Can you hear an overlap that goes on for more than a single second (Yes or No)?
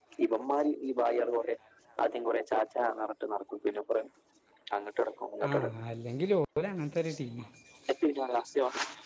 No